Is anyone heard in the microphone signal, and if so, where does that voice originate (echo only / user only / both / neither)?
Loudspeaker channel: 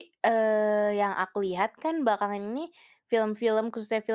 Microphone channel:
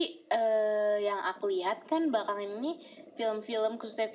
echo only